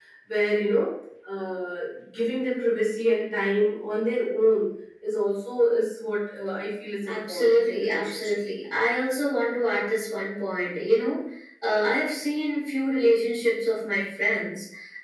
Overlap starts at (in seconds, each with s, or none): 7.1 s